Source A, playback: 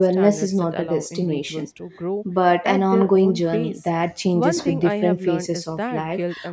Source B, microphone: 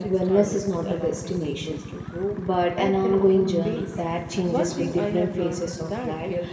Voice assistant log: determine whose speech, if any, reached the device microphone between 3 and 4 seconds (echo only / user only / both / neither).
echo only